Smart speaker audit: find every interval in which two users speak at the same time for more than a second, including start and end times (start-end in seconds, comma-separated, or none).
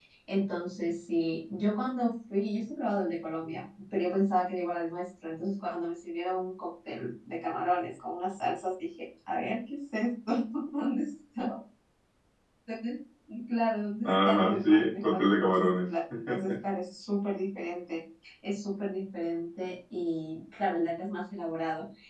14.0-15.8